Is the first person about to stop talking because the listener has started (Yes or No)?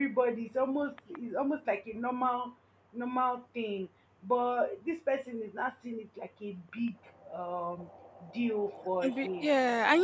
Yes